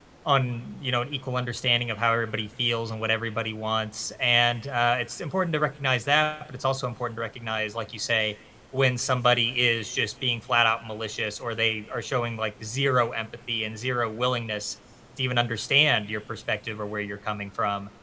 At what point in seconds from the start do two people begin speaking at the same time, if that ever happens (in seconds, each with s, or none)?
none